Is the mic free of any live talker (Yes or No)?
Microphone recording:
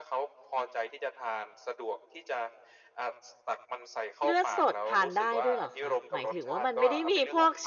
No